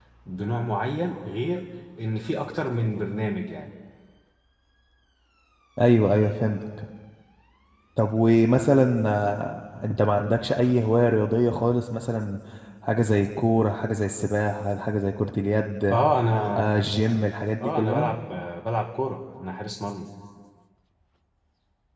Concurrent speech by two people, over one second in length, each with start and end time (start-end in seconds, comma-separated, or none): none